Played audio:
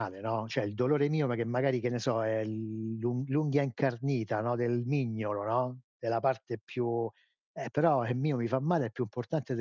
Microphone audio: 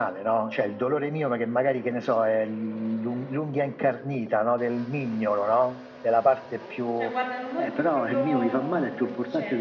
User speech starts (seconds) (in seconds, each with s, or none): 7.0 s